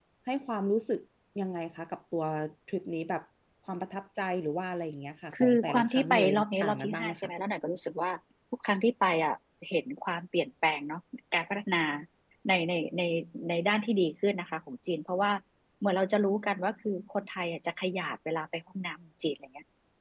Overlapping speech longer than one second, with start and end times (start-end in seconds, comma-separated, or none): 5.3-7.3